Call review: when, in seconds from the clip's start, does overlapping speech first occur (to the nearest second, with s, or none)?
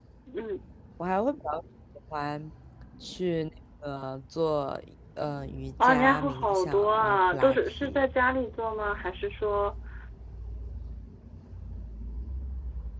6 s